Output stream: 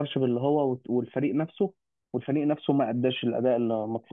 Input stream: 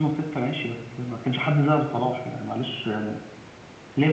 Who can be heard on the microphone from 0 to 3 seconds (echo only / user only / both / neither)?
user only